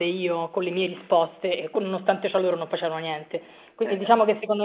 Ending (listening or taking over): listening